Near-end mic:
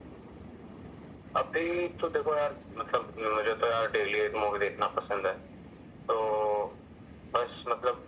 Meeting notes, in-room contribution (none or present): none